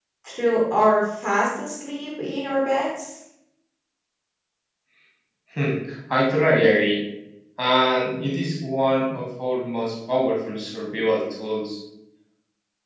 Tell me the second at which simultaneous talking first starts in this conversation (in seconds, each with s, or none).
none